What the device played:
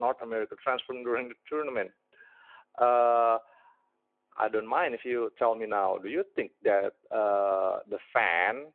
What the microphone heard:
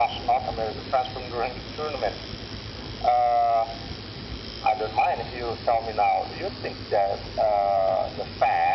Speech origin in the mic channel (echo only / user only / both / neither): echo only